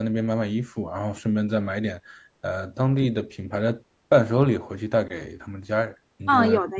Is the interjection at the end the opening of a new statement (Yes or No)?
Yes